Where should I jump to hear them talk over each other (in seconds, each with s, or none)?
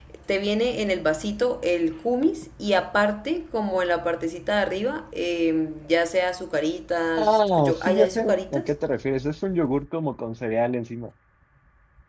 7.2 s